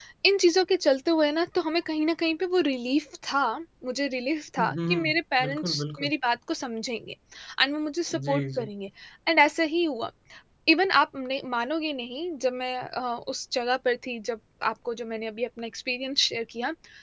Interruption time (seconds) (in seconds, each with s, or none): 4.6 s